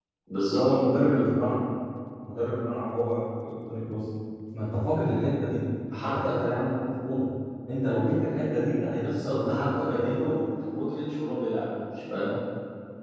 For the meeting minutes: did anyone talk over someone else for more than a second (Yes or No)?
Yes